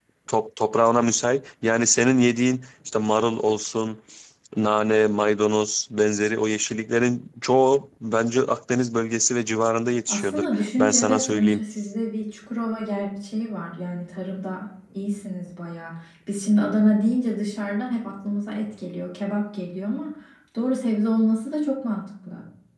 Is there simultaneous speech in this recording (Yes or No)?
Yes